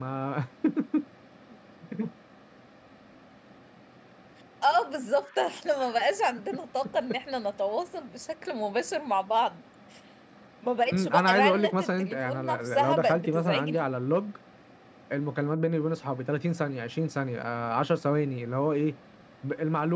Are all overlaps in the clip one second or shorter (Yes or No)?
No